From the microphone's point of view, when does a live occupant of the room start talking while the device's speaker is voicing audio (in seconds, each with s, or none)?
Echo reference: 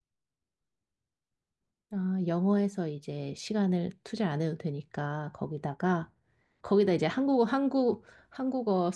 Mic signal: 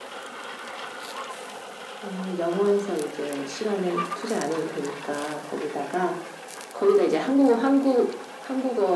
none